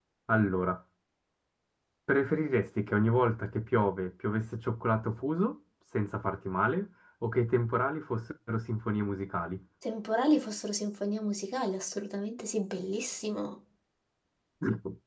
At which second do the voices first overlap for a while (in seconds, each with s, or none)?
none